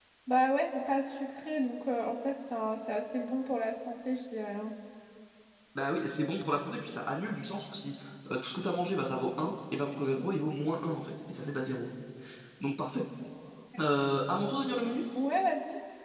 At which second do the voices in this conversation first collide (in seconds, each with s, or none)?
none